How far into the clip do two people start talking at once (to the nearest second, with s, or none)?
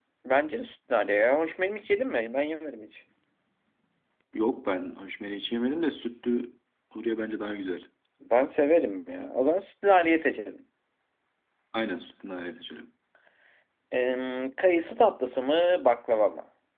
none